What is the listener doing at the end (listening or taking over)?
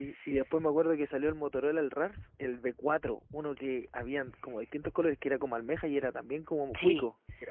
taking over